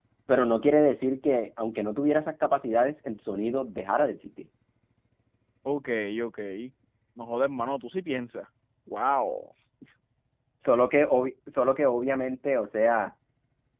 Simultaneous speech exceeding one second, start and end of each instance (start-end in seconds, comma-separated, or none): none